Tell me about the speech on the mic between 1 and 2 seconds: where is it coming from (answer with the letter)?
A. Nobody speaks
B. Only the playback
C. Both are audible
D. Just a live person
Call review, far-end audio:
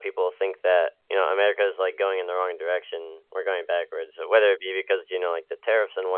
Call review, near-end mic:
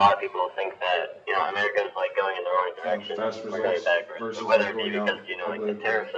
B